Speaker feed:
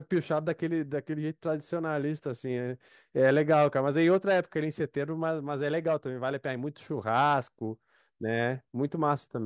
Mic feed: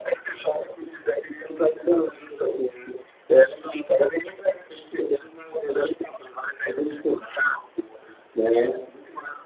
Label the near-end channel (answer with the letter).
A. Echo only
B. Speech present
A